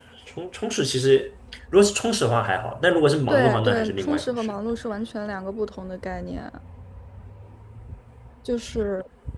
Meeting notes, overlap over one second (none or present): present